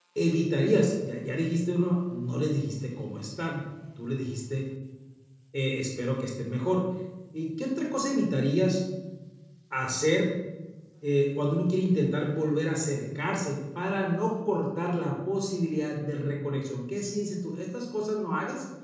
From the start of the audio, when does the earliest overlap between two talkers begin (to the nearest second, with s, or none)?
none